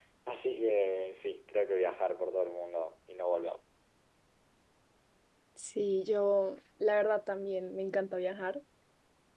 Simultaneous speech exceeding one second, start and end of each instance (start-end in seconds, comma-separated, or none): none